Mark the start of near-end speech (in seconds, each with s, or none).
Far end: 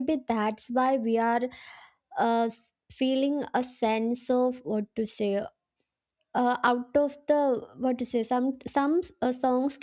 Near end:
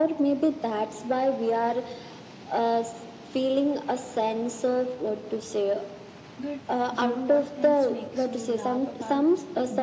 6.4 s